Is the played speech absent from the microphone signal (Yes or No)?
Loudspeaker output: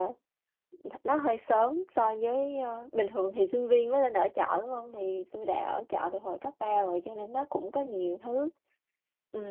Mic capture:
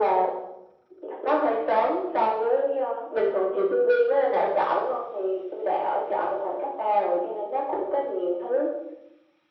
No